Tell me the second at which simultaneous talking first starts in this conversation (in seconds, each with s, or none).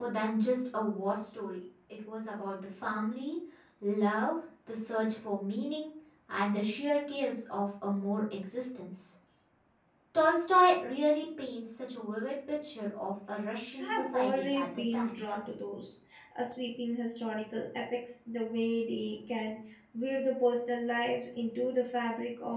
13.8 s